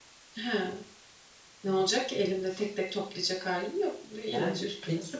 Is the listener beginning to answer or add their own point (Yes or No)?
Yes